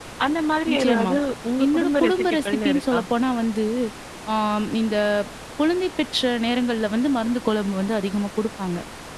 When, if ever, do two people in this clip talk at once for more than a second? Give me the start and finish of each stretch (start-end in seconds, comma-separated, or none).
1.6-3.0